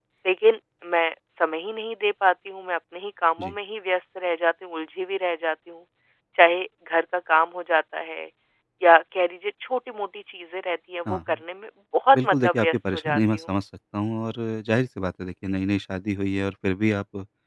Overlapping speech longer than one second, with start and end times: 12.1-13.6

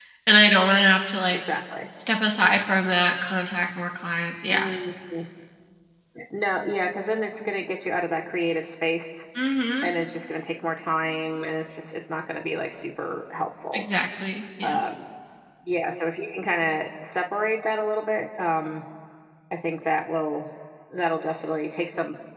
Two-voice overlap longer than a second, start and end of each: none

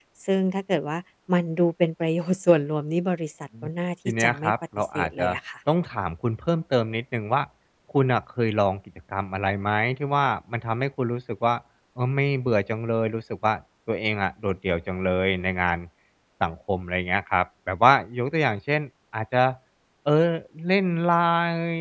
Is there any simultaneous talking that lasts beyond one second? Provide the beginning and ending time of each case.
4.1-5.3

